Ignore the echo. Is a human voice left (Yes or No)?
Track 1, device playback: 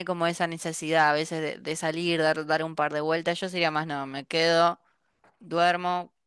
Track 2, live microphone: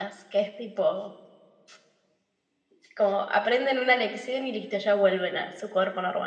Yes